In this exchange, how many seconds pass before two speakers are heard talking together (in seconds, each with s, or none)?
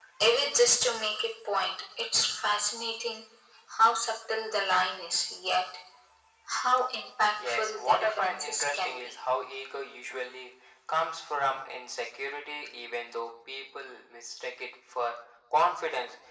7.5 s